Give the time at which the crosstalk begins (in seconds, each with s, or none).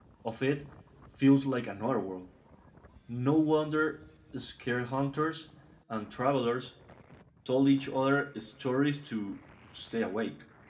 none